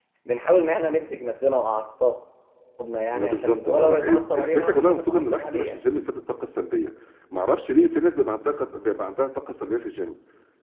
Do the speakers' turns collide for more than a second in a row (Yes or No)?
Yes